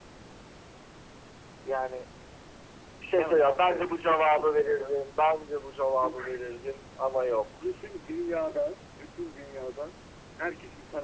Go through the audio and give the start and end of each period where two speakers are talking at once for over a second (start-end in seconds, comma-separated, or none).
3.2-4.9